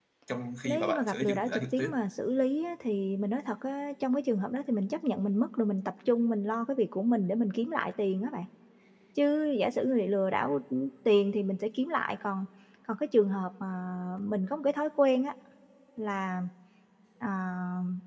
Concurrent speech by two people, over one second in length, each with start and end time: 0.6-2.0

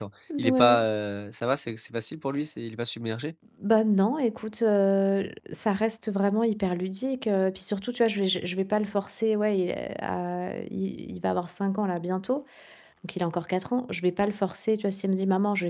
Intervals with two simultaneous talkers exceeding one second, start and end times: none

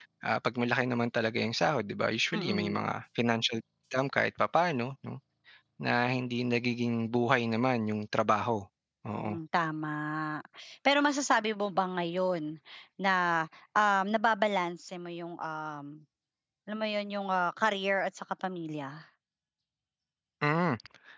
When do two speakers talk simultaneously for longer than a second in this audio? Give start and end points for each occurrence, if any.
none

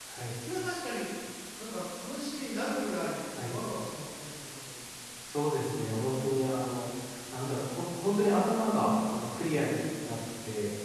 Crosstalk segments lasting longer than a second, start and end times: none

